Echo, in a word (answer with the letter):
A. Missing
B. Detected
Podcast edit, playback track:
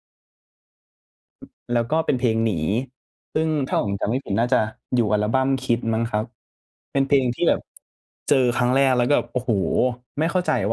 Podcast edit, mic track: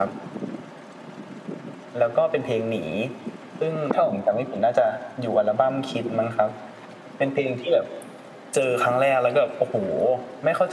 B